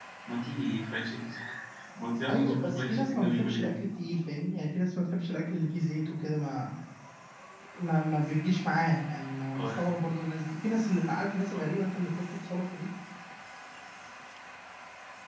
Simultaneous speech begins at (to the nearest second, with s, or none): 2 s